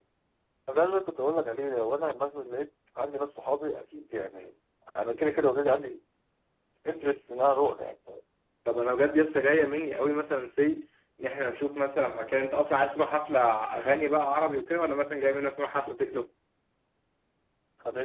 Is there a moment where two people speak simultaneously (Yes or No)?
No